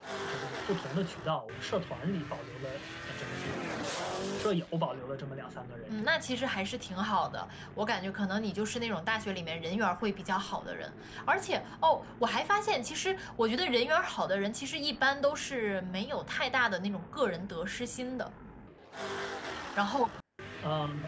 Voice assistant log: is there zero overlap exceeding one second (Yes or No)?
Yes